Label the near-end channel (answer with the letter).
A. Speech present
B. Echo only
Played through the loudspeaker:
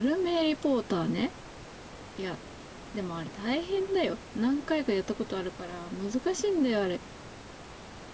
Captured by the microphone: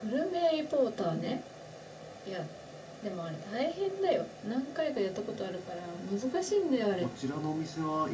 A